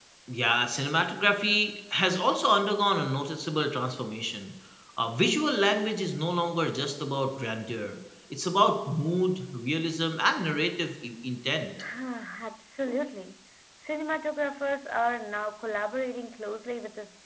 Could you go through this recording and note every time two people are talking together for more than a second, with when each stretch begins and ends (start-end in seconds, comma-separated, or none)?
none